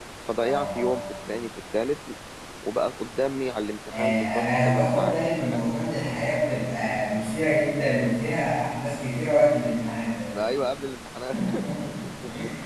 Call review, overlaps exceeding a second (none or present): present